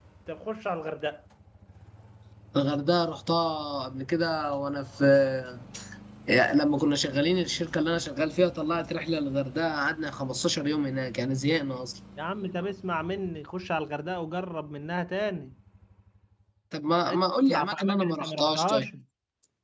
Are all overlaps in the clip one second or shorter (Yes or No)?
No